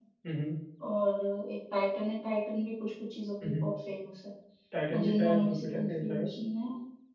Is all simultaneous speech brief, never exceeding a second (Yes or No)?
No